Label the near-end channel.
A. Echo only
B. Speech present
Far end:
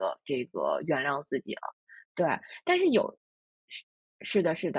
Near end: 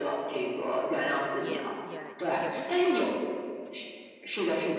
B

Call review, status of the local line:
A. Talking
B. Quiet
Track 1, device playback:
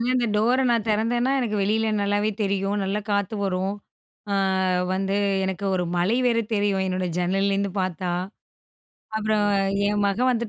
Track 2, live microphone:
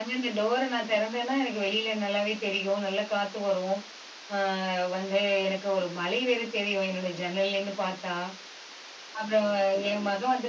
B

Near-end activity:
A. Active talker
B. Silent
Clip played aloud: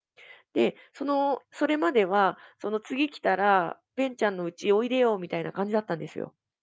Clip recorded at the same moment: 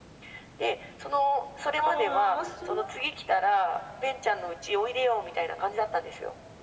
A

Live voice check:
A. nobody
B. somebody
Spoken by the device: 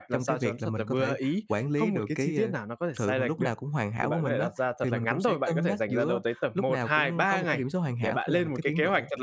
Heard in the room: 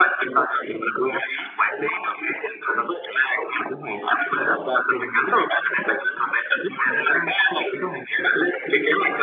A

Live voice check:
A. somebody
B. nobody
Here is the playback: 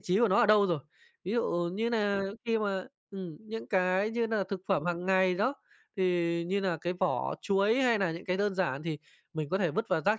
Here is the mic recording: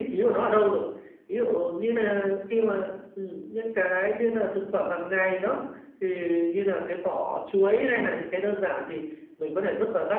B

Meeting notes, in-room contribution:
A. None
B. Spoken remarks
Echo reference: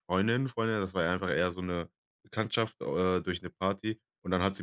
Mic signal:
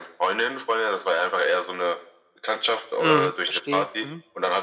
B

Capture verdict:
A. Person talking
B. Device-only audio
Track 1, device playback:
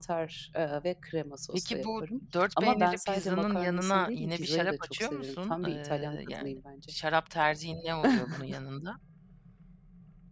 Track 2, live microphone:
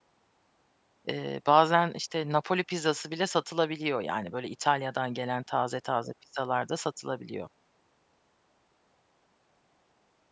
A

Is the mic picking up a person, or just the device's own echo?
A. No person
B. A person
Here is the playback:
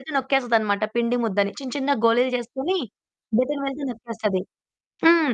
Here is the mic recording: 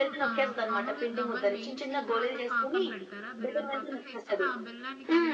B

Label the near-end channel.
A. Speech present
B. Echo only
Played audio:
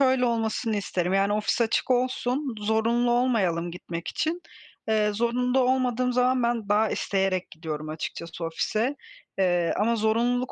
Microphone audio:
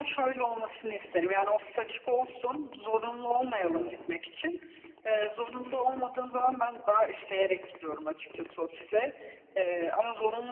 A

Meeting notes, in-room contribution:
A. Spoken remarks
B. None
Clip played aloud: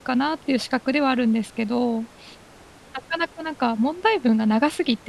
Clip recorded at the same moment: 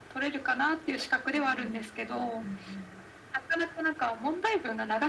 A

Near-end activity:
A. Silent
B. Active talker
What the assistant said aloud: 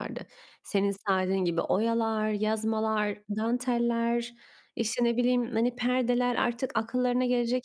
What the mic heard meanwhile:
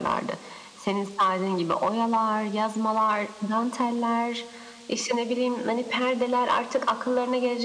A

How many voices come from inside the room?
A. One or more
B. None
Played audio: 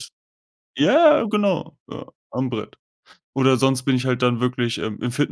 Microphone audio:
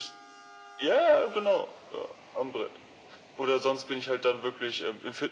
B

